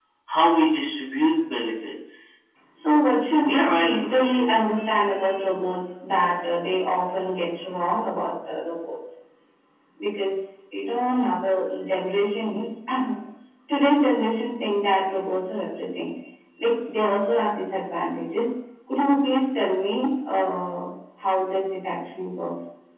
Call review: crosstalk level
present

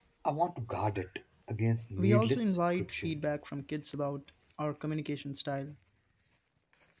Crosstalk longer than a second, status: present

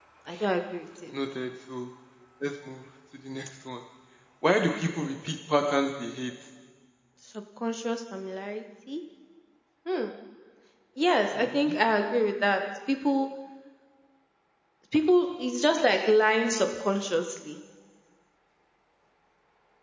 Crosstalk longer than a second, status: none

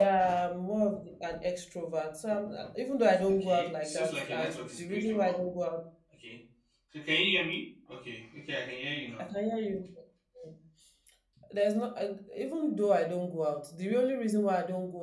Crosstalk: present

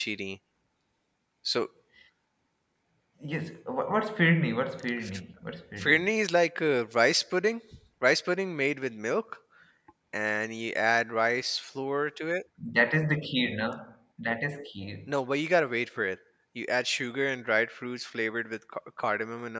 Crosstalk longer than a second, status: none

